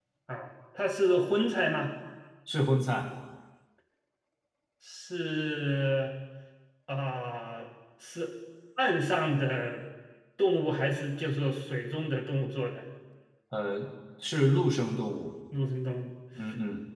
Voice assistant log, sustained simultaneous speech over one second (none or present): none